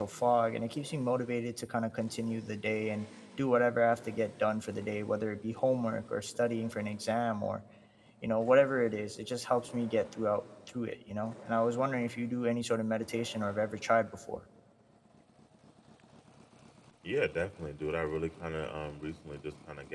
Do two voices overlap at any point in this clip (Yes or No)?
No